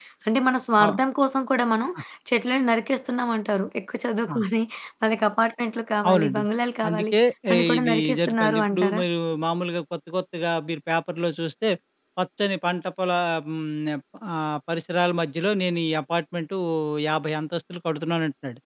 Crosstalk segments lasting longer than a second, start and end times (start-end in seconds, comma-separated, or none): 7.8-9.0